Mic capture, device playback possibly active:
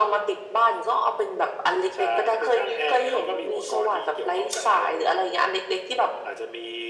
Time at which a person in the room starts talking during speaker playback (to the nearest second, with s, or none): none